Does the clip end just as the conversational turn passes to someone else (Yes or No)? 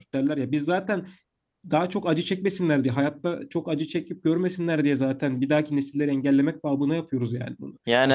No